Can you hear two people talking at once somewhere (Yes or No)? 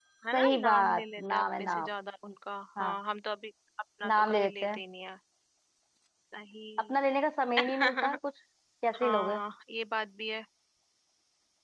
Yes